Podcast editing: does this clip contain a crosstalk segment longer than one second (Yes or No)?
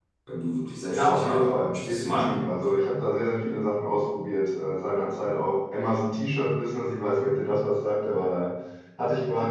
Yes